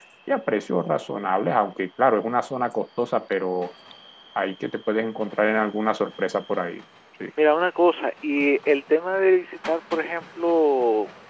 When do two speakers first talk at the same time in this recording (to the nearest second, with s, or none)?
none